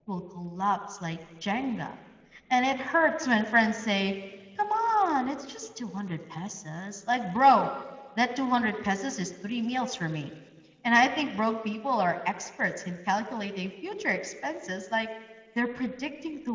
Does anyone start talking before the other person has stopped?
No

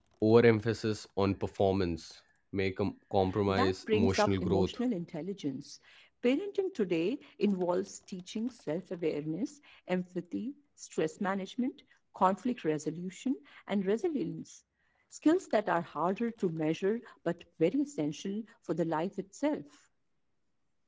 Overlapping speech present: Yes, from 3.5 s

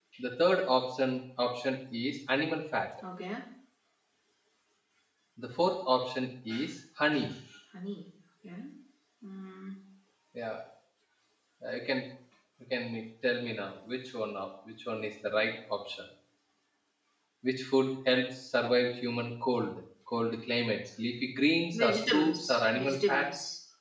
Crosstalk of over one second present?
Yes, from 21.7 s

